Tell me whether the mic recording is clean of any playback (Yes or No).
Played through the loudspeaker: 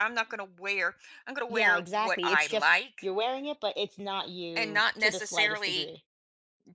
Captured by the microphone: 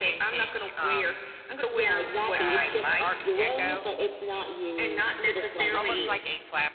No